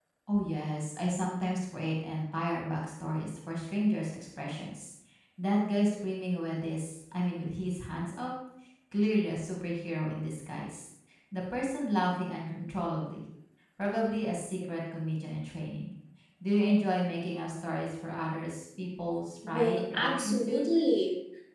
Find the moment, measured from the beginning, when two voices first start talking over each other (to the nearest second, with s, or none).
19 s